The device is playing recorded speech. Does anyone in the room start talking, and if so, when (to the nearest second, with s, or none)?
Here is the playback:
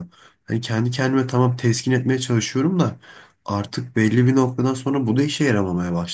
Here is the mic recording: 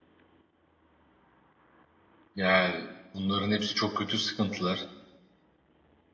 2 s